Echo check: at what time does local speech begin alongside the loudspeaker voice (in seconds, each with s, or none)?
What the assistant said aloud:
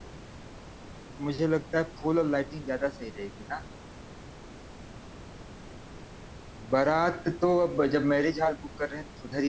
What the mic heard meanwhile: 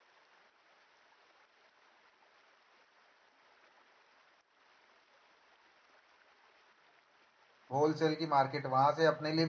7.7 s